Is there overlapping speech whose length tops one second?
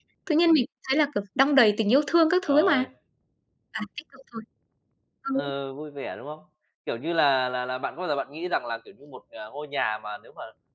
No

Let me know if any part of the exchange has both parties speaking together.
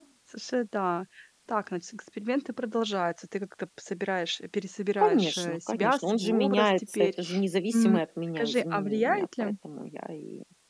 Yes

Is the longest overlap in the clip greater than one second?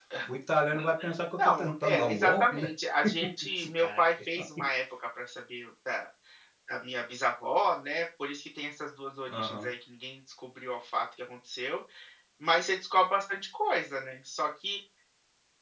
Yes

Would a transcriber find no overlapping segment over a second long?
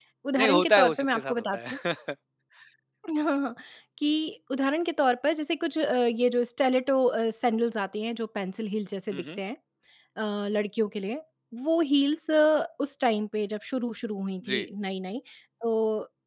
No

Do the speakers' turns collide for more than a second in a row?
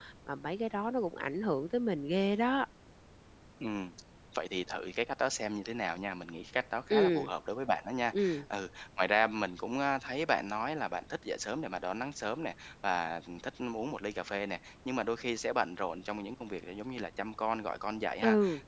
No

